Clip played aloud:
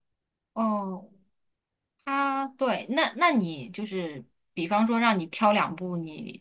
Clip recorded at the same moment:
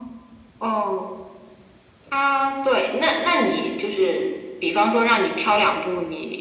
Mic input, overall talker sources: echo only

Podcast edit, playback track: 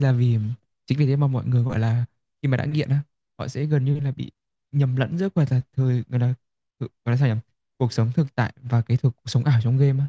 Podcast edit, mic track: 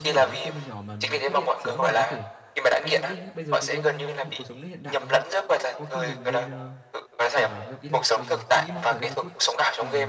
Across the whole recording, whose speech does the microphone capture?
both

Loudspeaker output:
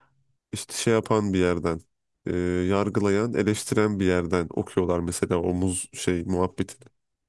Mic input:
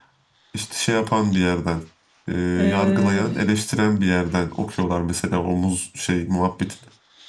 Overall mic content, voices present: both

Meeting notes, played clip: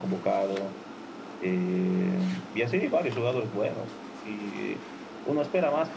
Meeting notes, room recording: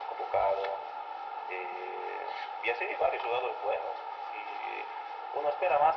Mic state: echo only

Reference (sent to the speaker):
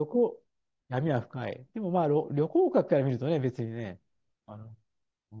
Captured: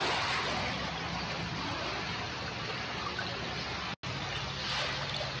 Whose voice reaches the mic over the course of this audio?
neither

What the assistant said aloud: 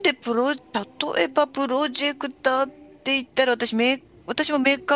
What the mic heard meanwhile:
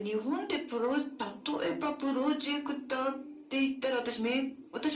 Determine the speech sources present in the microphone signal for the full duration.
echo only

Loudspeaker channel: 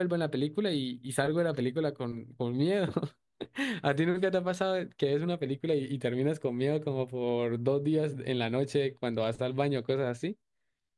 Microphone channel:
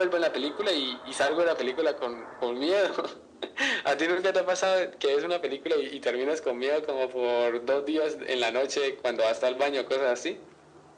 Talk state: echo only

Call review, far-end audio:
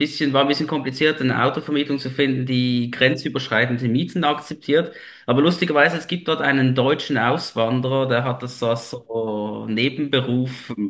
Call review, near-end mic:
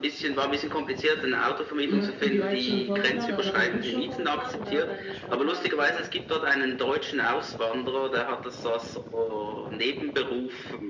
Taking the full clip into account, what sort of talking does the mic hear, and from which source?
both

